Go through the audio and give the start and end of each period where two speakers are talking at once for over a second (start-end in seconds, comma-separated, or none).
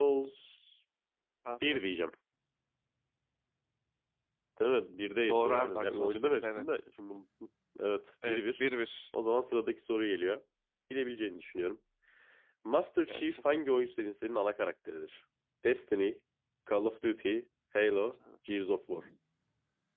5.3-6.8